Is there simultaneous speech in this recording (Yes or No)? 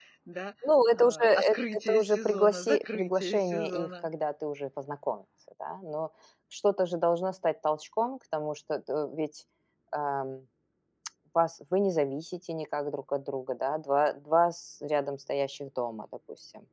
Yes